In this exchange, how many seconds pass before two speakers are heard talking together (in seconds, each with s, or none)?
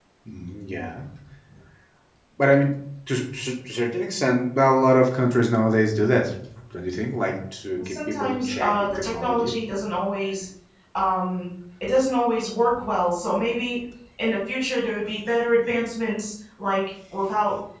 7.8 s